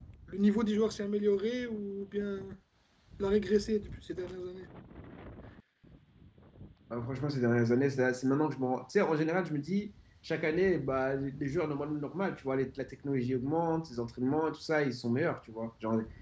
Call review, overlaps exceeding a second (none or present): none